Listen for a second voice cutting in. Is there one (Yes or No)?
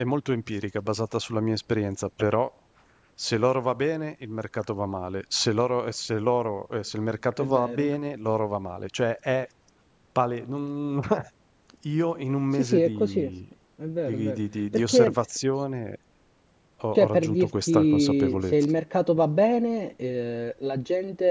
Yes